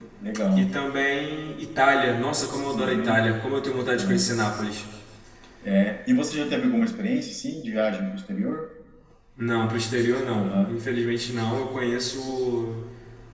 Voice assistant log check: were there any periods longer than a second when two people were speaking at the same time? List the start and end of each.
none

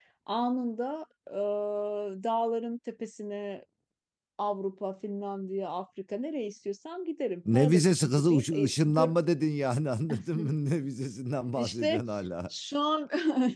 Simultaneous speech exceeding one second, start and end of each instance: 7.5-9.1

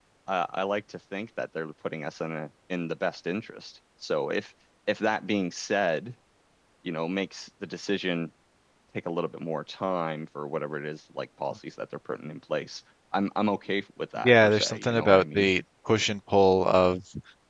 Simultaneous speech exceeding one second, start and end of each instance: 14.2-15.5

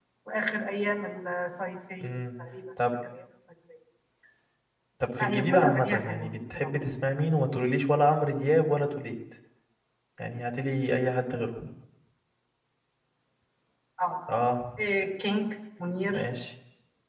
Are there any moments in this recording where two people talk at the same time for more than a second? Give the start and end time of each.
5.2-6.7

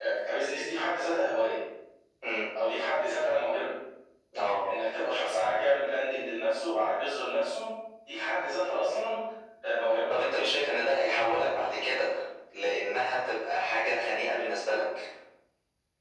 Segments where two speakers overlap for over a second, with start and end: none

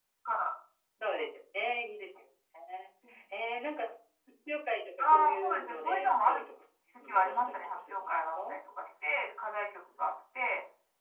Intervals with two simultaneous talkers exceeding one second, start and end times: 5.1-6.4, 7.0-8.6

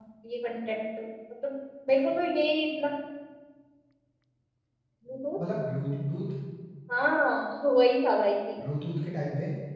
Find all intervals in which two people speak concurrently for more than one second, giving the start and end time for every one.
none

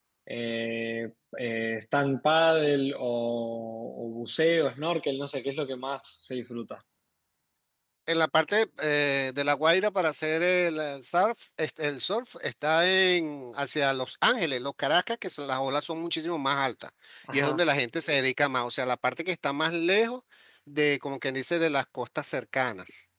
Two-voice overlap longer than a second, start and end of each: none

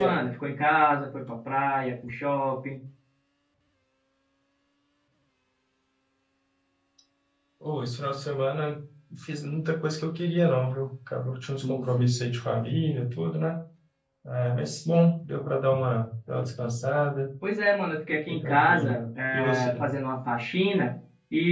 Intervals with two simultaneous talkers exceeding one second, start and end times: 18.3-19.9

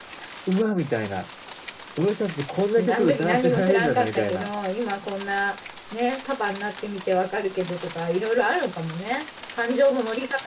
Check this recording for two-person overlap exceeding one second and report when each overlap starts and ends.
2.9-4.5

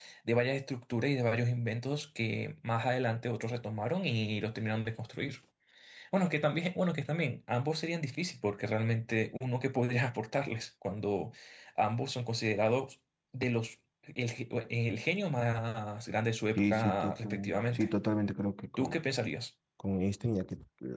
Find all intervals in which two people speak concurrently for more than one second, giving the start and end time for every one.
16.6-17.9

